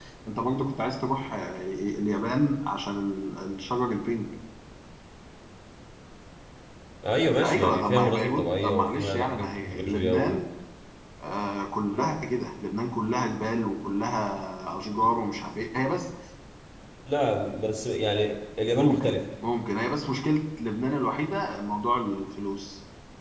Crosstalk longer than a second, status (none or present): present